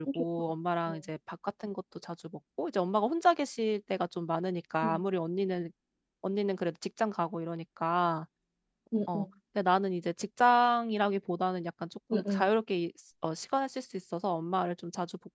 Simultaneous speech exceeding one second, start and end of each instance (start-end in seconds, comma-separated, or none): none